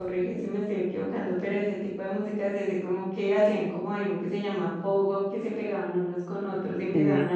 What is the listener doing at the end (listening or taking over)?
listening